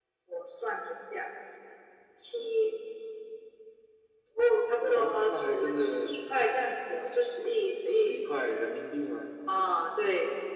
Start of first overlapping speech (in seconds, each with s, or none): 4.8 s